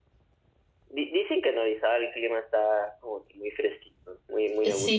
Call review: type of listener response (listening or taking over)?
taking over